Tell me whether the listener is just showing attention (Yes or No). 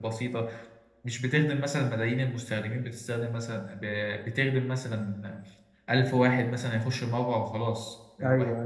Yes